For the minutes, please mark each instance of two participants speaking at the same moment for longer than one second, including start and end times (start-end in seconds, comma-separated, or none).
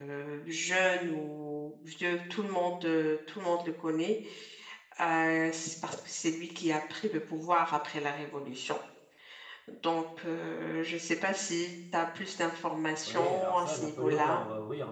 13.1-14.4